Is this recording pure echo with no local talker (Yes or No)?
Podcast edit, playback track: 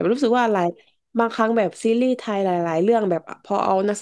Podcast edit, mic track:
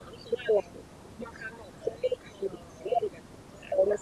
Yes